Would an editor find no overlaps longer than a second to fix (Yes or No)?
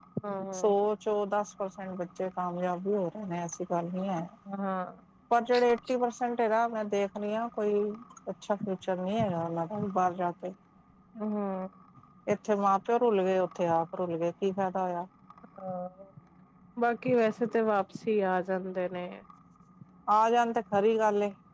Yes